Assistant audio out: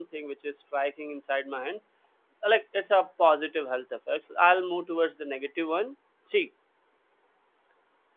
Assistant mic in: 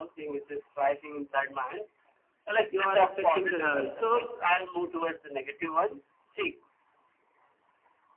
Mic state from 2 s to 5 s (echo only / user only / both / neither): both